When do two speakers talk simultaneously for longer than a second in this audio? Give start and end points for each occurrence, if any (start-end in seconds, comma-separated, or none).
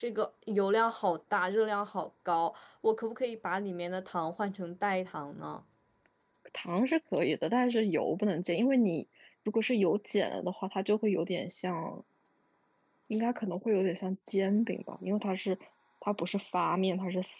none